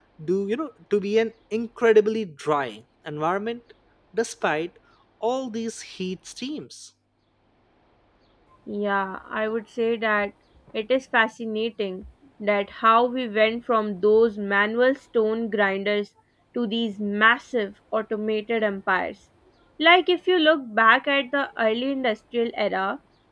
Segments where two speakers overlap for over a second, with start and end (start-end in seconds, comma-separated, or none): none